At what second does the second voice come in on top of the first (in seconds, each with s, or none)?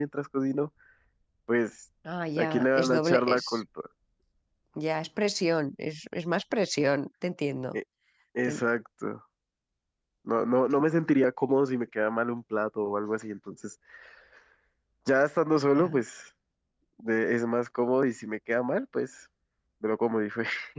2.4 s